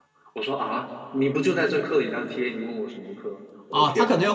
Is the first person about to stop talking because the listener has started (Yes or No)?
Yes